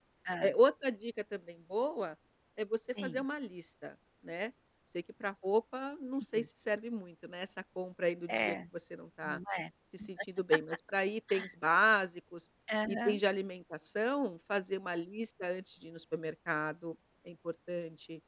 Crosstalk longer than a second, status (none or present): none